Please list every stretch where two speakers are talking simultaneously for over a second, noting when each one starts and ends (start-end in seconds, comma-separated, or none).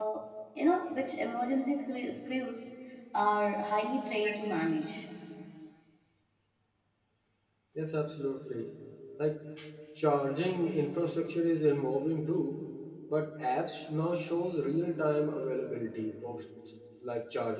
none